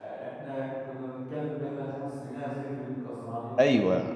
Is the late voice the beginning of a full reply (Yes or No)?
Yes